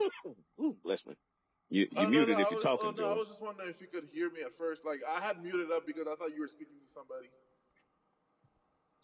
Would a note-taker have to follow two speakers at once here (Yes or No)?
Yes